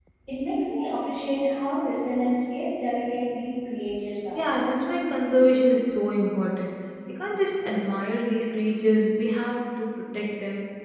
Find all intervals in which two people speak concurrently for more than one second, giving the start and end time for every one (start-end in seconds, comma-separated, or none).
none